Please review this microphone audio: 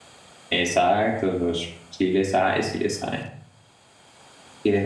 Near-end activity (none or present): present